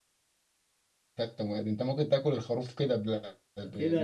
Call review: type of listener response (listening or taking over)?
taking over